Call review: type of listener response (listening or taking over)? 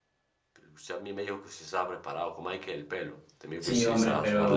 taking over